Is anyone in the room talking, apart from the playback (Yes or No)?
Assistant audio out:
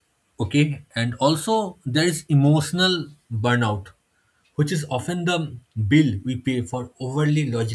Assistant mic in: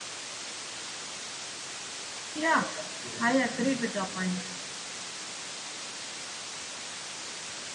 Yes